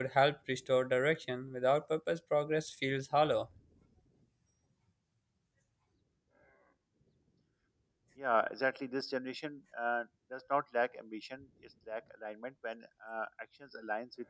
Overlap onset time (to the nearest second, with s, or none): none